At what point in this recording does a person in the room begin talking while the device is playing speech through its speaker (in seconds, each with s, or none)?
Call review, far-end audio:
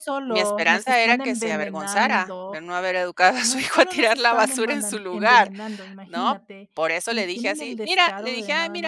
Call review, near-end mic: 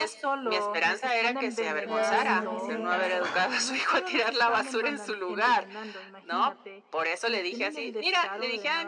1.8 s